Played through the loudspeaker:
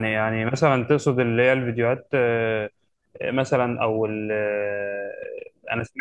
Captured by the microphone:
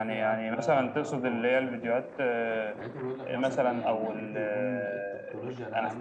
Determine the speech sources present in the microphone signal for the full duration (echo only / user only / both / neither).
both